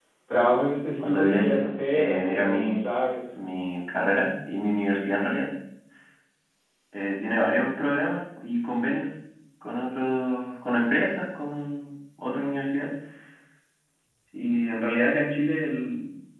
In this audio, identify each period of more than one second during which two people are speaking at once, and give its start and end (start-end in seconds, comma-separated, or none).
1.0-2.8